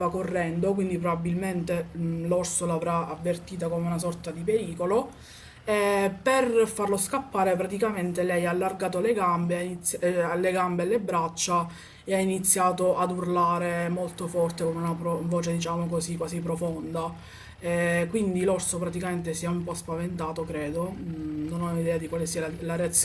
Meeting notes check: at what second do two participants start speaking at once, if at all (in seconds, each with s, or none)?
none